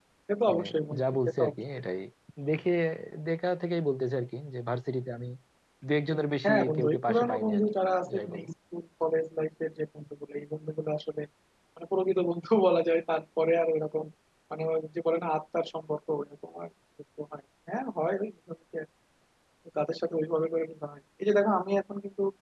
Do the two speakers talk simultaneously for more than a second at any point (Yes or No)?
Yes